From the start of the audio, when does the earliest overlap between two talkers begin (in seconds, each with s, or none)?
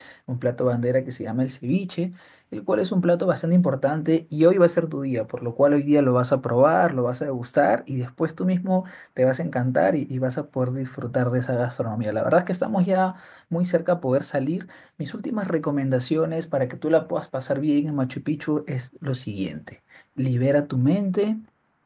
none